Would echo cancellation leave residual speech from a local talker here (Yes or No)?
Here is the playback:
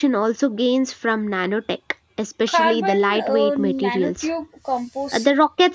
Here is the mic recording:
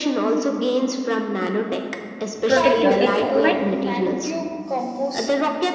Yes